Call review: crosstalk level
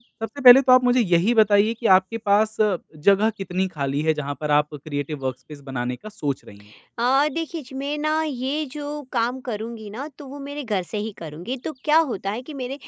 none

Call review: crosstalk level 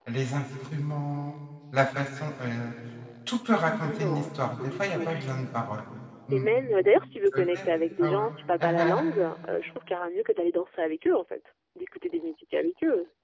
present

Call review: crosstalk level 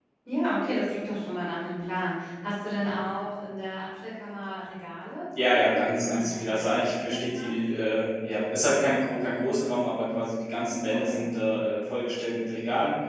present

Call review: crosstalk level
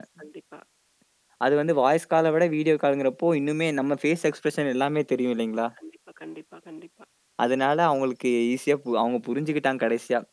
none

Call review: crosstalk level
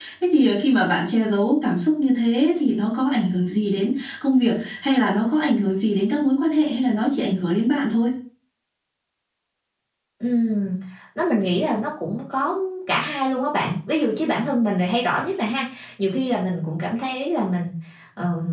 none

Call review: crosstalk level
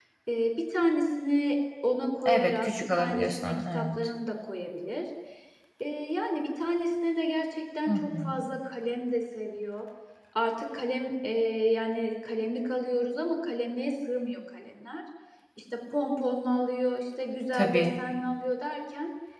present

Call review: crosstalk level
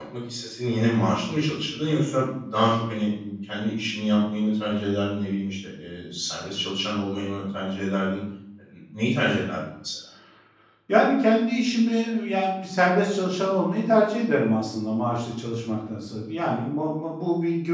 none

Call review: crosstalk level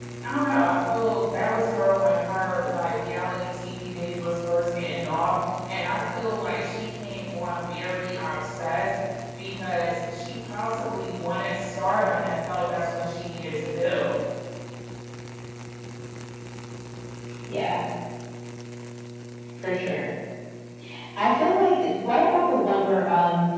none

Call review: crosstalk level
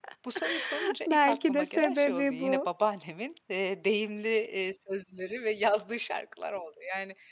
present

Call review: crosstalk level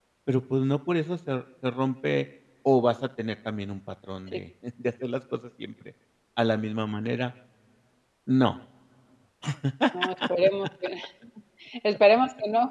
none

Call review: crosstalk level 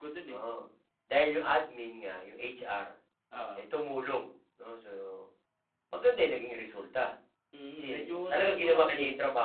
present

